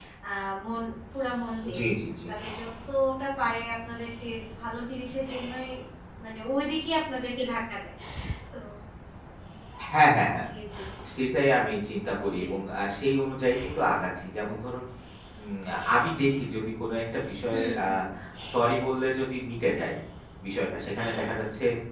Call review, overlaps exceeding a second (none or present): none